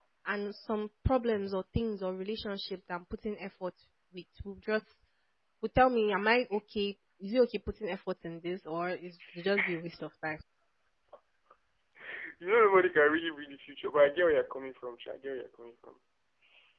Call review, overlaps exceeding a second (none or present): none